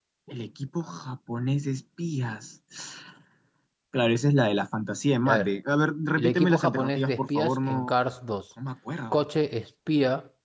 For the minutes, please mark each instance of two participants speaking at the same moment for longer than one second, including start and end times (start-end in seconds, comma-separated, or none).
6.2-8.0